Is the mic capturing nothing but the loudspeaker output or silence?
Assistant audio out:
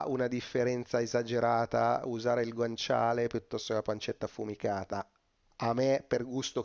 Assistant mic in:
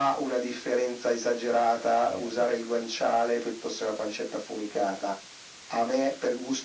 No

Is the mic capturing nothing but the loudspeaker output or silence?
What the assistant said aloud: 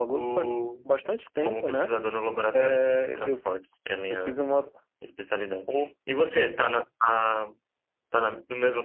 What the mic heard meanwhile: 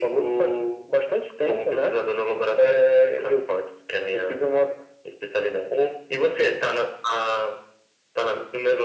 Yes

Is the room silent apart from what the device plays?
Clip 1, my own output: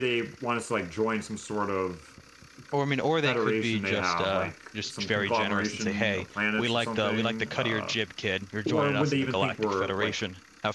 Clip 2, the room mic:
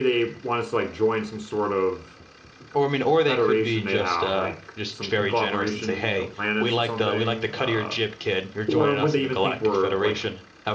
Yes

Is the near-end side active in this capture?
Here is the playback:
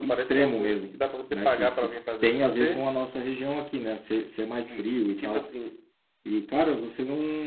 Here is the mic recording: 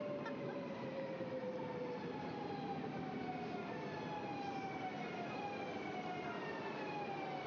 No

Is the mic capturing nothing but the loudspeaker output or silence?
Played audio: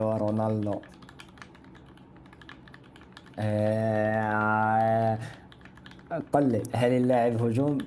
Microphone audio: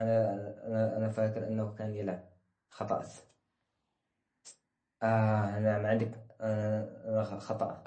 No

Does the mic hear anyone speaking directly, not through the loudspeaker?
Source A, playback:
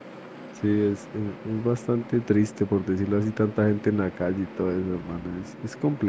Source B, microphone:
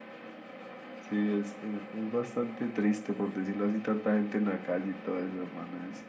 No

